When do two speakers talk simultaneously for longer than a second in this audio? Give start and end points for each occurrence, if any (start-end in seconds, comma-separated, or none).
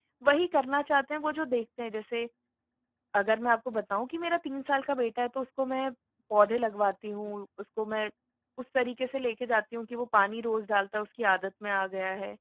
none